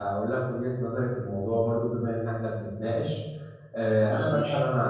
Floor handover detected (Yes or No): No